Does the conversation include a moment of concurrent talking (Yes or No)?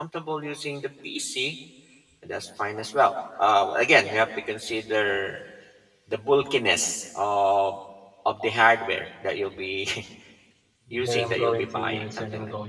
Yes